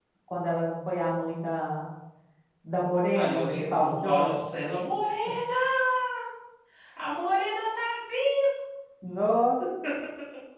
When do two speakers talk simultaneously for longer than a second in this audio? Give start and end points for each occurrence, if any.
3.1-4.3

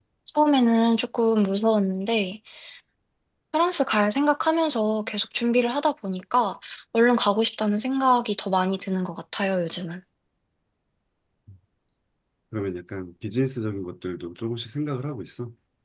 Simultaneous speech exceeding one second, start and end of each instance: none

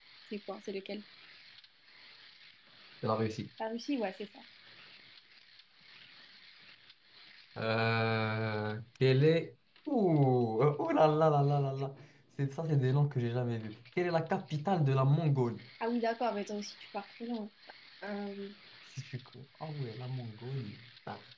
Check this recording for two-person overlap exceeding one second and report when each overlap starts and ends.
none

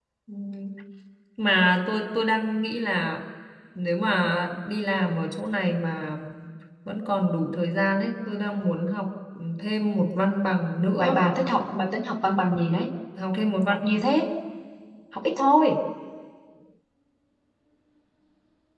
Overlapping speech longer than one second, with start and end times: none

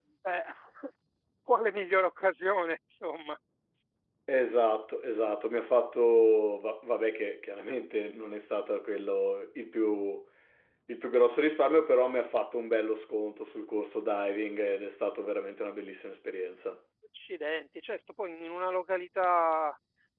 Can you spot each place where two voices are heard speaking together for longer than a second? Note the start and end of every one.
none

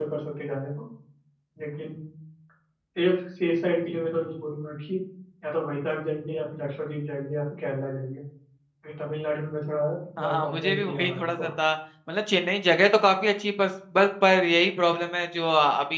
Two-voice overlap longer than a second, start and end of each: 10.2-11.5

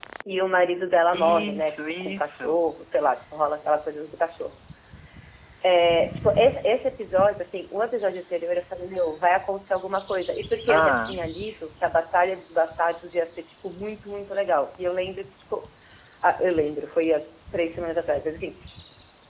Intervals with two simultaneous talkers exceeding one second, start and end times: 1.1-2.7

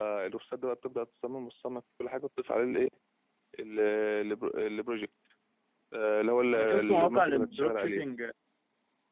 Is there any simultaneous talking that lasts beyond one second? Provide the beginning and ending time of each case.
6.5-8.0

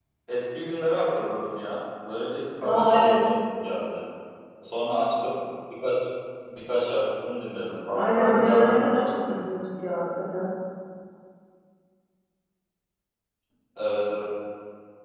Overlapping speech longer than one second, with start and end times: 7.9-9.4

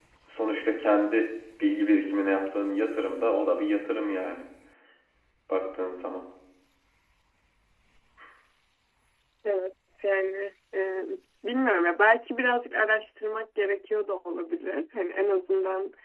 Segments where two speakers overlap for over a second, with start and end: none

